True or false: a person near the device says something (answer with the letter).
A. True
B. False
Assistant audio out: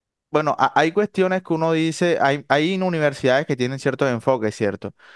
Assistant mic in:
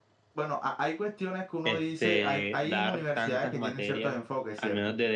A